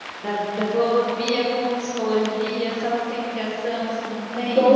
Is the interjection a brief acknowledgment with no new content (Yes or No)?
No